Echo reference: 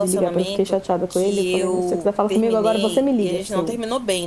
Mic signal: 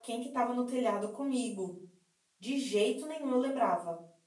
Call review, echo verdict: none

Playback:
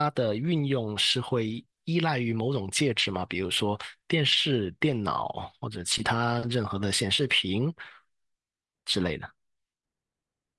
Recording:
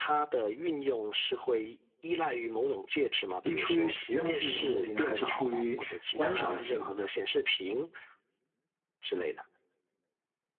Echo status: present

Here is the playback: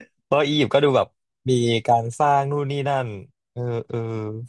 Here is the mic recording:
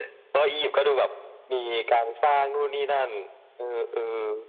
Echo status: present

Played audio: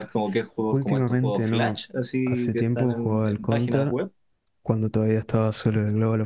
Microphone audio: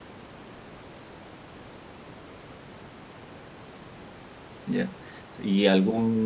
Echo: none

